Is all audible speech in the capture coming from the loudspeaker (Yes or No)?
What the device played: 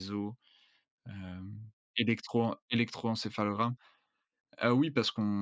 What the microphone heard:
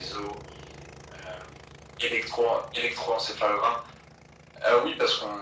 Yes